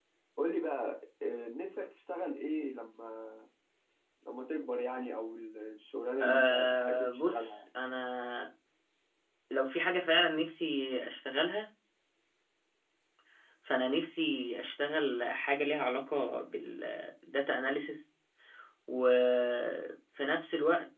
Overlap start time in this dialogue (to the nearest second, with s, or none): 6 s